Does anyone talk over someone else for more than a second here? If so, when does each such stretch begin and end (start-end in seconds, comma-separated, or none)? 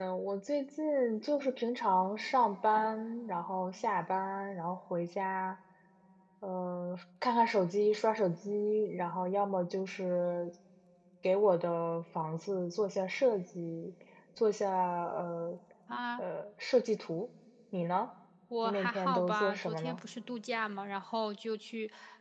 18.6-20.0